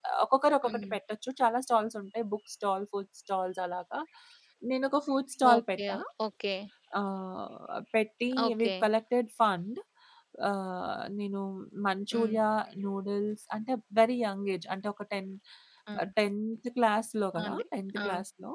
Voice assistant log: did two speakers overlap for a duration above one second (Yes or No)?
No